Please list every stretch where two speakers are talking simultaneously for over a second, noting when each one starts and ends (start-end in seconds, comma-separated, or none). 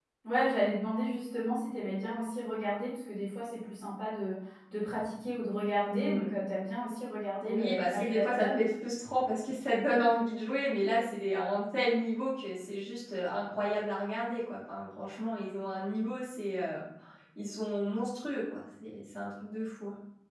7.4-8.6